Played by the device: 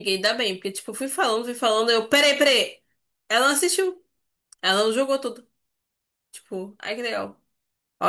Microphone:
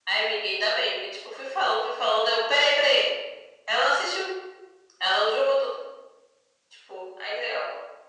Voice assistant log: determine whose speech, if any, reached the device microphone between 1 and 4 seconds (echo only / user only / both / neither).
echo only